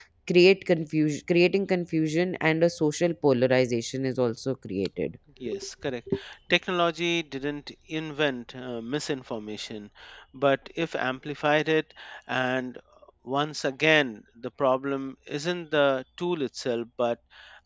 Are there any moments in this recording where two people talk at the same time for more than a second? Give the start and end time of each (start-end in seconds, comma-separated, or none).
none